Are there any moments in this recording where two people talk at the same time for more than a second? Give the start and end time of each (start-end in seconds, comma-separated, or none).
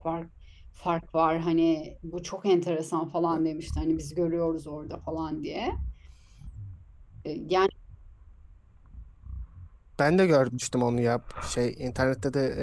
none